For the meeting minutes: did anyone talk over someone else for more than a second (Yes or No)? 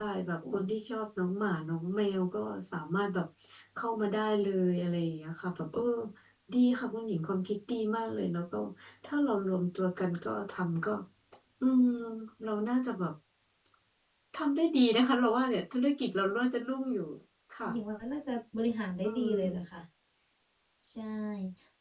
No